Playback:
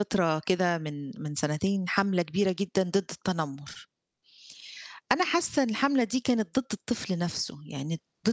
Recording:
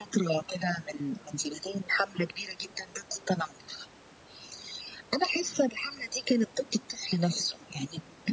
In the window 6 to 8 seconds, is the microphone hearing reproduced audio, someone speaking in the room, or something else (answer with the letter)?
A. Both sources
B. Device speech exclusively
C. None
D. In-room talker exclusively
B